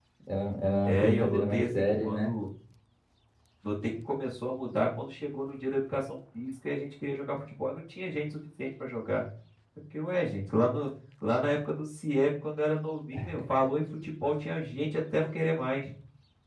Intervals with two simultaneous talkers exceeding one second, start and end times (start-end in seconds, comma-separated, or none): 0.9-2.4